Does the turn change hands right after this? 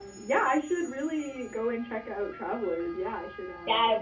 Yes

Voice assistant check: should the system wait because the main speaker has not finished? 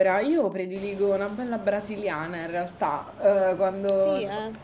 Yes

